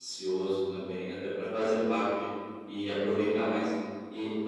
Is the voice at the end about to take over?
No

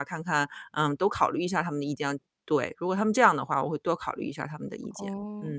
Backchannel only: No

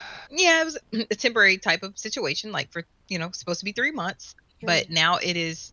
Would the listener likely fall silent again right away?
Yes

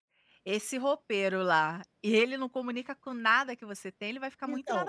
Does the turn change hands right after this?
Yes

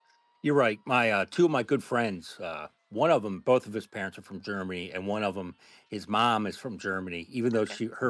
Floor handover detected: No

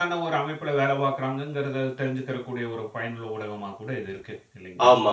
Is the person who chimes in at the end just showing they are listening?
No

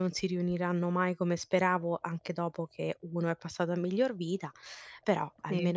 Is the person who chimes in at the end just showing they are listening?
No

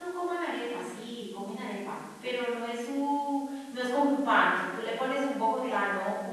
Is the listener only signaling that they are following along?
Yes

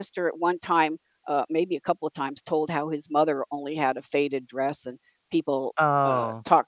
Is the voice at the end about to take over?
No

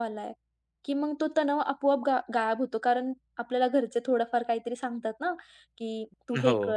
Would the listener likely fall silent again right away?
Yes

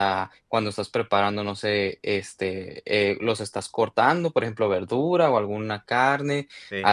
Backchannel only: Yes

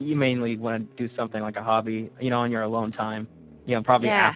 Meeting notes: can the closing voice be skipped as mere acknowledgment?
Yes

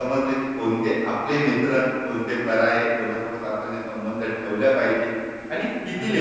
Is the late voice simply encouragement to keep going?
No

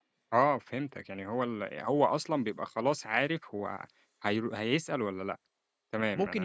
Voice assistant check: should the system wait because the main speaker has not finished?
No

